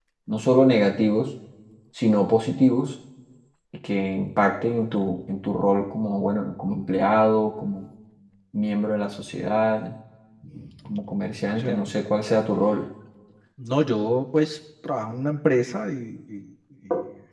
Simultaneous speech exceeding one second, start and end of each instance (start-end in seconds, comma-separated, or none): none